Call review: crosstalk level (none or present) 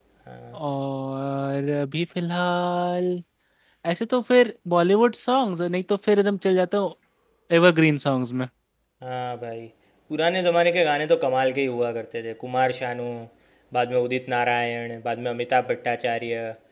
none